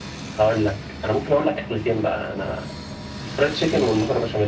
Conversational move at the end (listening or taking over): listening